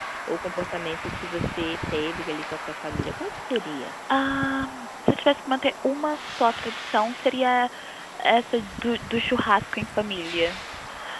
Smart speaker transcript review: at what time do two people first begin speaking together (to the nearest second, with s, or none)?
none